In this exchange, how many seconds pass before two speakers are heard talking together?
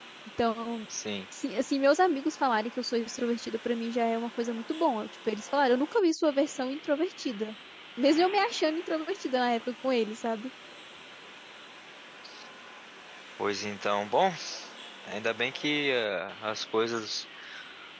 none

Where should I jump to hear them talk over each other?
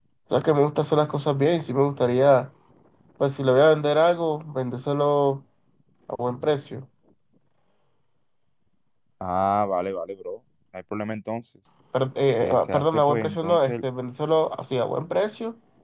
12.4 s

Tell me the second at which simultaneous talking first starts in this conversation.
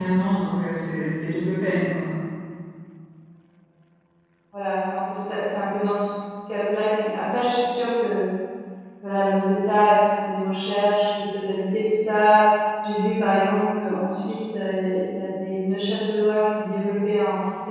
none

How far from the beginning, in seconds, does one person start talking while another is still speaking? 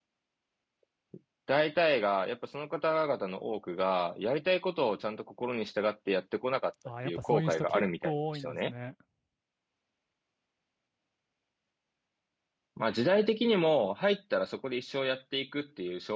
6.8 s

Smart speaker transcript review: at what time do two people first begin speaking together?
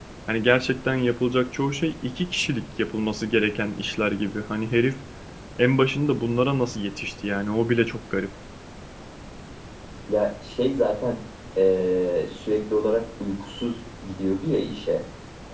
none

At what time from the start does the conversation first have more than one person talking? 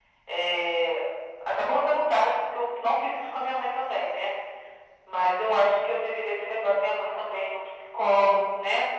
none

